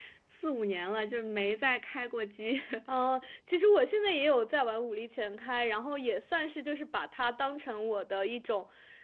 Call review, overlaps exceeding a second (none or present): none